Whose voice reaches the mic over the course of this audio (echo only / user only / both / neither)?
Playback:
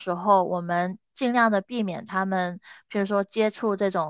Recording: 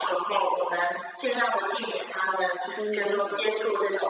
both